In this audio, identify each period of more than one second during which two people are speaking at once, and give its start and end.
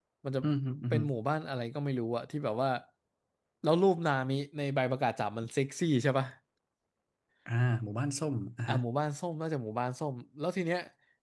none

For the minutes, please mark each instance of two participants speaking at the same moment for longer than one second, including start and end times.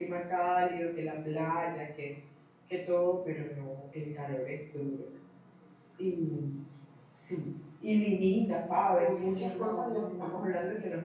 9.0-10.5

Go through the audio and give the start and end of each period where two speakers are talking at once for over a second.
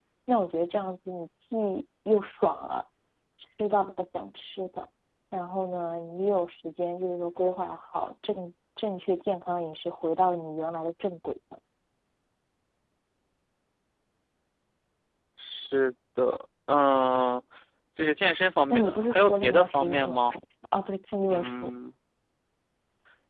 18.7-20.2

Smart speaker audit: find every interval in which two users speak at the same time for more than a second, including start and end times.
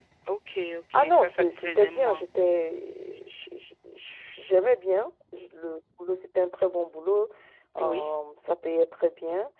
0.9-2.2

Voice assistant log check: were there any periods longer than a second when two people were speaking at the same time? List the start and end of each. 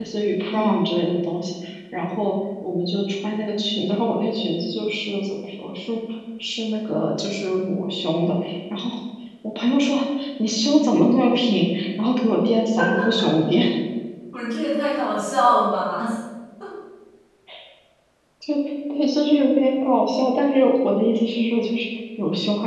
none

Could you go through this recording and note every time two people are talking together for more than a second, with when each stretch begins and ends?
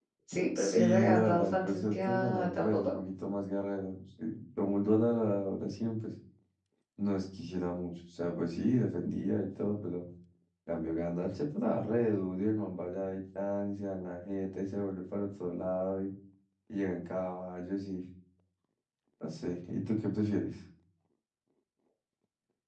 0.6-2.9

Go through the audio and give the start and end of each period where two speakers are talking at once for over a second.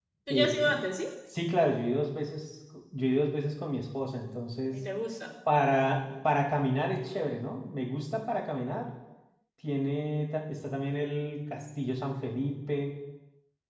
none

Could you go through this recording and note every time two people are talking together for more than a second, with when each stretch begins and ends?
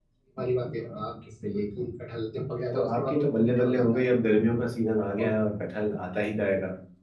2.7-4.2

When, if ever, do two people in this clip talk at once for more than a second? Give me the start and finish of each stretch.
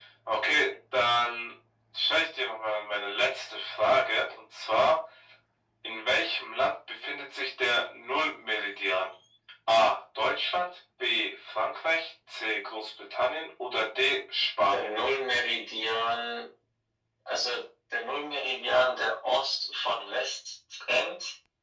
none

